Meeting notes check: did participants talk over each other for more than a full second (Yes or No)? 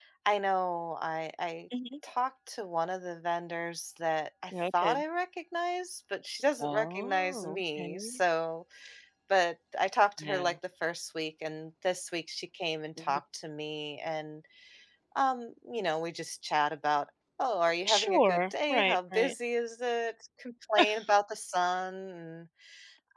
Yes